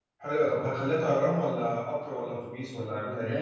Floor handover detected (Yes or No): Yes